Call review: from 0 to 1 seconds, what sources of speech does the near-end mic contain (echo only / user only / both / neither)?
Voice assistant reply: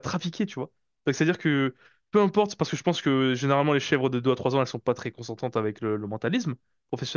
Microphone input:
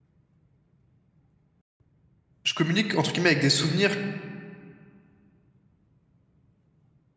neither